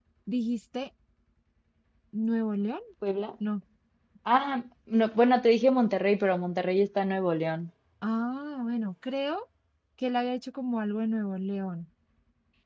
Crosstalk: none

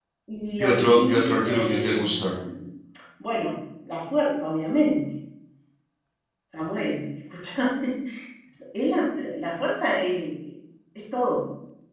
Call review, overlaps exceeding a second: present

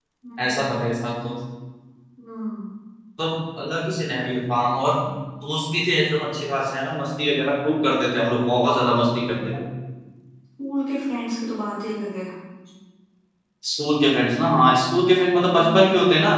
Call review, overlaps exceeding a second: none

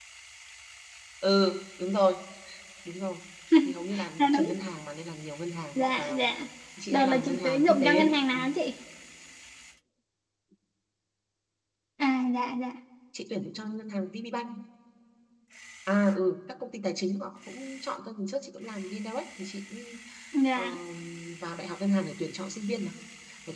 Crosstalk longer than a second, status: present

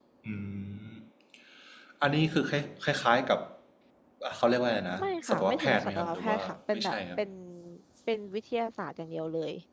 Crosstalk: present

